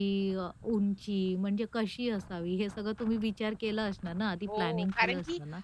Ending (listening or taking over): taking over